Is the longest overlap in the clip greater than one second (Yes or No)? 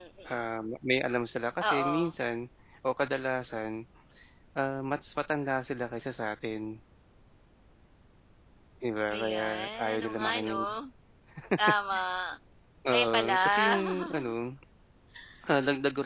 Yes